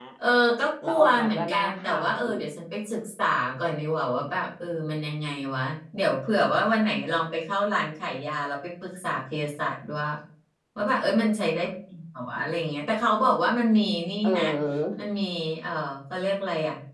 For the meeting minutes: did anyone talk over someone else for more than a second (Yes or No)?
Yes